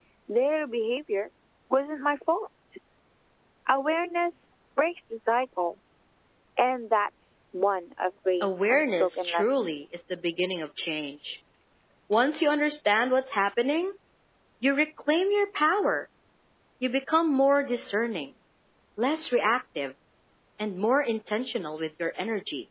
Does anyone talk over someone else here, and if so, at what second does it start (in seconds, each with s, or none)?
8.4 s